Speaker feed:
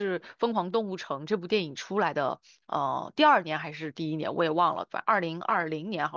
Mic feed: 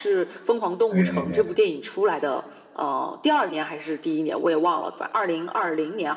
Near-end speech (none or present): present